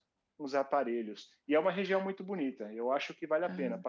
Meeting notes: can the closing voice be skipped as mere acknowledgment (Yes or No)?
Yes